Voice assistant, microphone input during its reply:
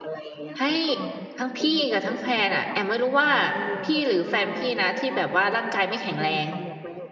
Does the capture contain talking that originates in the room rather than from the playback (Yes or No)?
Yes